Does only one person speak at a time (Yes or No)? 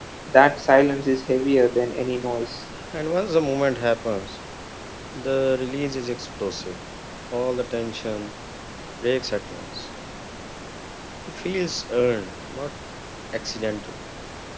Yes